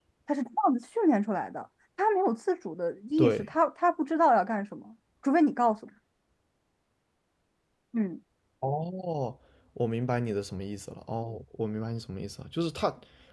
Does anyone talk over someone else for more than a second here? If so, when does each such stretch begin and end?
none

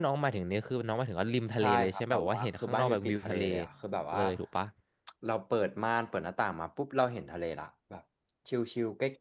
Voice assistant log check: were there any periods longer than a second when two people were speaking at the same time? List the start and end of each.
1.6-3.4

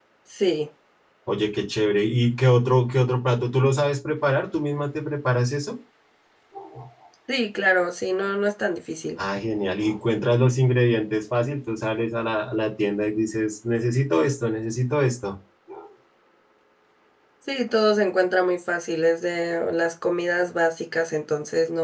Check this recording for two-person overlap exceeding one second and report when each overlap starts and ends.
none

